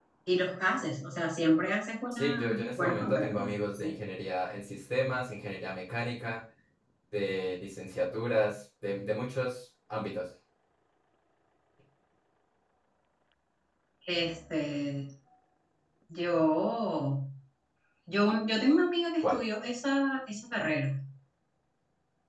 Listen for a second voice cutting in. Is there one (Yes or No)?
Yes